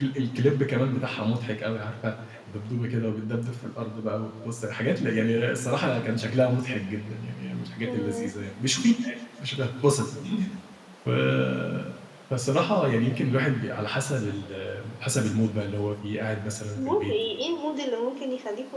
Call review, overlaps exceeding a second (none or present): none